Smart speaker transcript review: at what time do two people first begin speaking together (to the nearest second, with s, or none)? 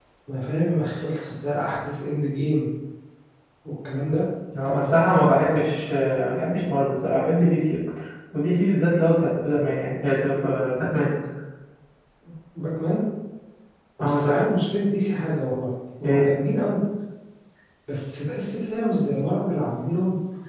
5 s